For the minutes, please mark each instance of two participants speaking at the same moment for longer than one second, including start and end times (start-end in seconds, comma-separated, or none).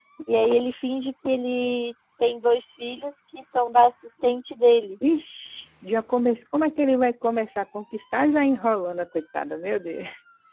none